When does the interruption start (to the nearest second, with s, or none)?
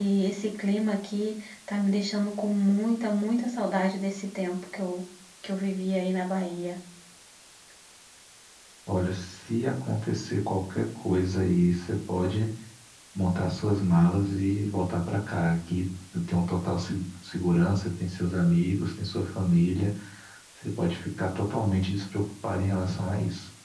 none